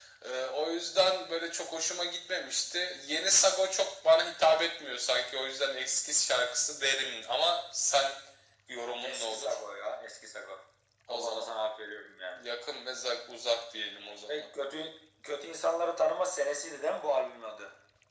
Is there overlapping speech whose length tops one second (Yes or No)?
No